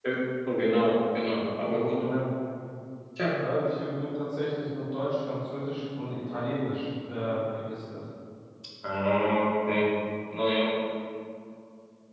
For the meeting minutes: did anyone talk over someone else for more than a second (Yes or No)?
No